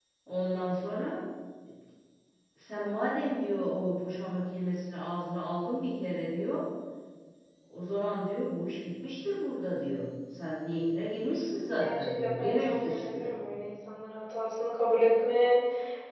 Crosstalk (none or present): present